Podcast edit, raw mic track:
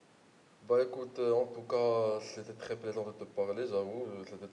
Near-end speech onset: 0.6 s

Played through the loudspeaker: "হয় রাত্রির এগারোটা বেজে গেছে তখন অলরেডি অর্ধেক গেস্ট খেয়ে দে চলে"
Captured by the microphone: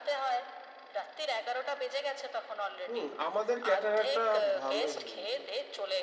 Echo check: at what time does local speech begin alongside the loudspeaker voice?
2.9 s

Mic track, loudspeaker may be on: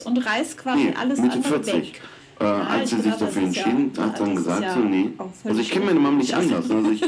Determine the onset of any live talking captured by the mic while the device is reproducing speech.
none

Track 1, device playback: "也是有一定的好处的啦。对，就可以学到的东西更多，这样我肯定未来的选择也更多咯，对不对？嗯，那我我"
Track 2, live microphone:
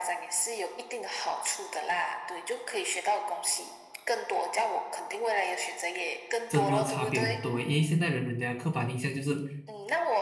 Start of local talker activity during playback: 6.5 s

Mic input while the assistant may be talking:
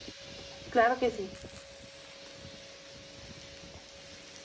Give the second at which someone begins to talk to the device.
0.7 s

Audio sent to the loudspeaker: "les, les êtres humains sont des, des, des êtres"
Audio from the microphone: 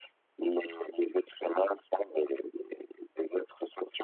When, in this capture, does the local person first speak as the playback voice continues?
none

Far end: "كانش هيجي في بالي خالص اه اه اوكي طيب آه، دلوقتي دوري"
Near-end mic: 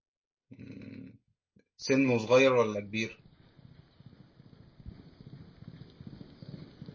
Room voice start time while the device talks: 0.5 s

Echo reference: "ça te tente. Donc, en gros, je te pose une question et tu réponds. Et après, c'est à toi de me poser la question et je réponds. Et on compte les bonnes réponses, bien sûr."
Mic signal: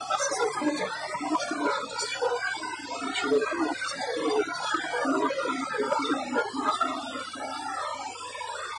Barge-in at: none

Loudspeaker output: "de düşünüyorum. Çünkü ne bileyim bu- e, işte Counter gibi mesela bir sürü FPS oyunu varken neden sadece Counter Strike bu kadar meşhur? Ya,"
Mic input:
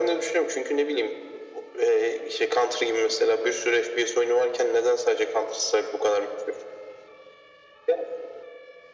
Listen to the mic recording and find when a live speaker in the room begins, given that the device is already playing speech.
none

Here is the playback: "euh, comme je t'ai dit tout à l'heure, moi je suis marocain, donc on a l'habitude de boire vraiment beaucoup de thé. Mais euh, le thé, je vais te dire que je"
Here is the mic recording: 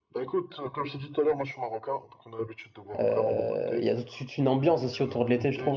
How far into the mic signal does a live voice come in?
3.0 s

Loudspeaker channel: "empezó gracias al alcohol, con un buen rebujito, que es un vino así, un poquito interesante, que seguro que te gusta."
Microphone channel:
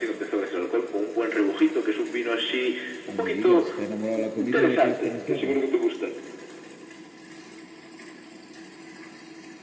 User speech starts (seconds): 3.0 s

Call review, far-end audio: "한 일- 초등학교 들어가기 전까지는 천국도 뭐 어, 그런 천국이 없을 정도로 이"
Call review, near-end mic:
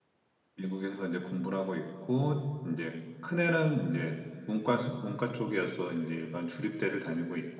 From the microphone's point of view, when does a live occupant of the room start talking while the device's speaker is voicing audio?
0.6 s

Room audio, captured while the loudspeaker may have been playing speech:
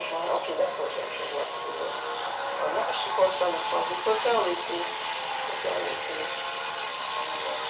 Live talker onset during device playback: none

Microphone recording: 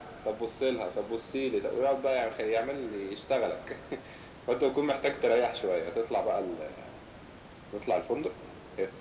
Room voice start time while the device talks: none

